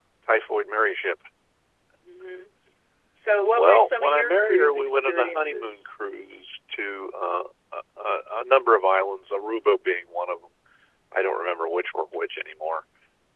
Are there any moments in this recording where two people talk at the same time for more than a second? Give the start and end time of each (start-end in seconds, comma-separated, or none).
3.5-5.8